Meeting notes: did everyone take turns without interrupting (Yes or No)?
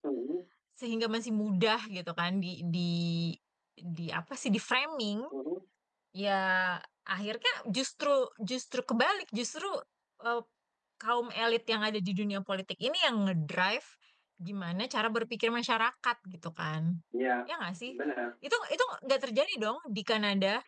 Yes